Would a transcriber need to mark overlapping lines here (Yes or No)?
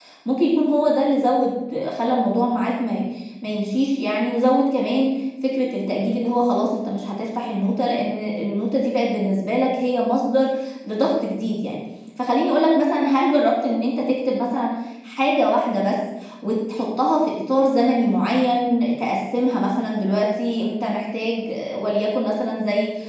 No